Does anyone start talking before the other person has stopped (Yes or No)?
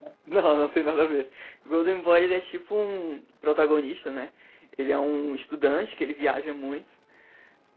No